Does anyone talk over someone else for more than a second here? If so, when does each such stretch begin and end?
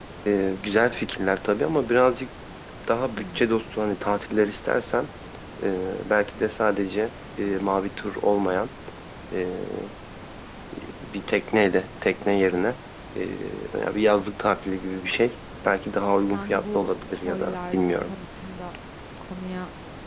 16.3-18.1

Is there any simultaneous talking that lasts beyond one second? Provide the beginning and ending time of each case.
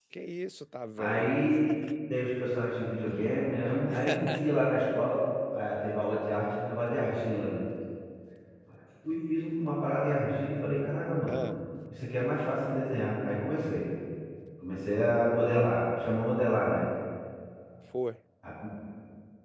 none

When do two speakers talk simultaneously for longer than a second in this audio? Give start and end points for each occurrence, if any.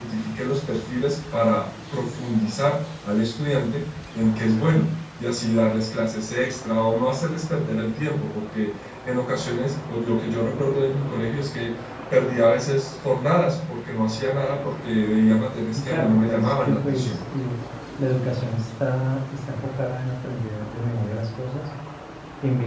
15.8-17.2

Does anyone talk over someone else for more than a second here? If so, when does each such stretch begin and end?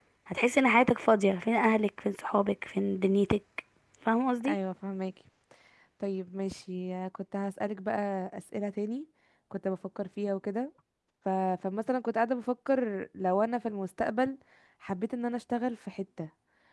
none

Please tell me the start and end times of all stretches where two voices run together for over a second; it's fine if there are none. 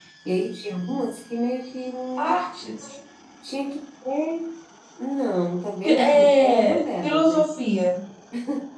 5.8-7.4

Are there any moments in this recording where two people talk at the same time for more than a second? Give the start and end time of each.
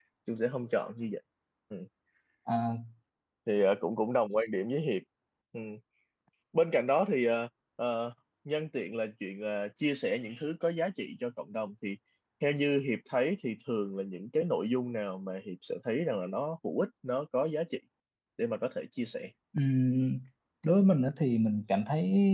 none

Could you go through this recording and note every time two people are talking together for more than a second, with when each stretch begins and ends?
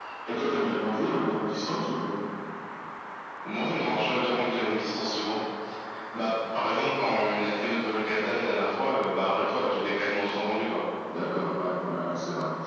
none

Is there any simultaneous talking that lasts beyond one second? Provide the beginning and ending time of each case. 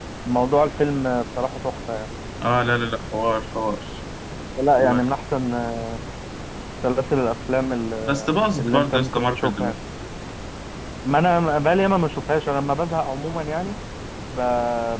8.1-9.8

